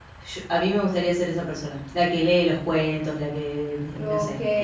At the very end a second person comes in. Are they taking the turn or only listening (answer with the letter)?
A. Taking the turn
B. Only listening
A